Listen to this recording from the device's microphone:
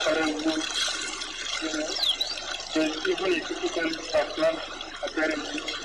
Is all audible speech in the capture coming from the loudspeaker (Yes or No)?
Yes